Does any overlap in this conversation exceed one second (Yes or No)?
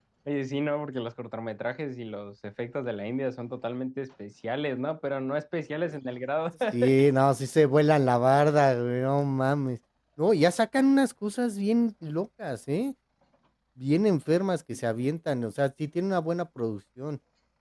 No